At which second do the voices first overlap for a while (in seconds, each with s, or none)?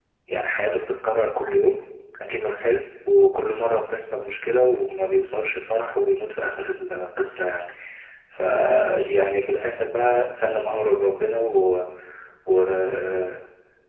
none